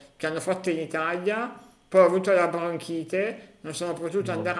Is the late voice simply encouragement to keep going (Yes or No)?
Yes